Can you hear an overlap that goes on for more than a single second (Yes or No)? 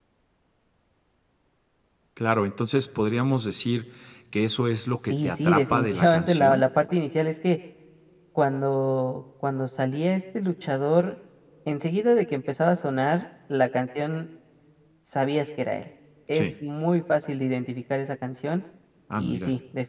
Yes